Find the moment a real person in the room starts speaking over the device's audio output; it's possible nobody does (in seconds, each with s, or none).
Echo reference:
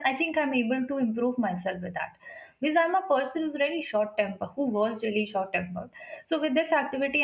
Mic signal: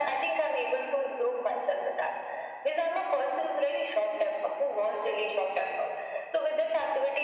none